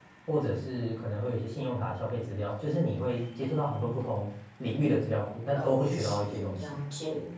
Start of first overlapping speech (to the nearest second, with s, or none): 6 s